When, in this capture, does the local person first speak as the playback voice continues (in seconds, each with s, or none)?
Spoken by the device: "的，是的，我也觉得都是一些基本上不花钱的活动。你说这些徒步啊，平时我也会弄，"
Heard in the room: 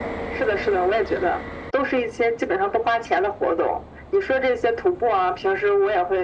none